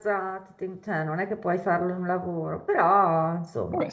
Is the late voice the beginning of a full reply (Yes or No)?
Yes